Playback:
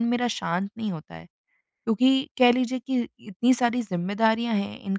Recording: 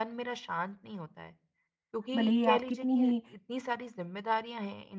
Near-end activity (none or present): present